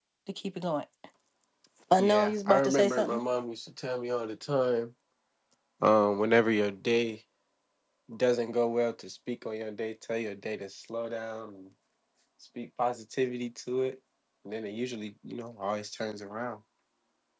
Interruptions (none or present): present